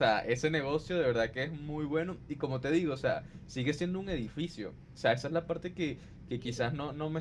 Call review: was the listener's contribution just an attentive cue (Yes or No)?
Yes